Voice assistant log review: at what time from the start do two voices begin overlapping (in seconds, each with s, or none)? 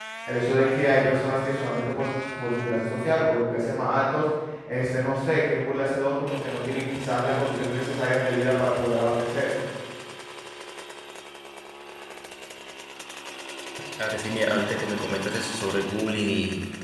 none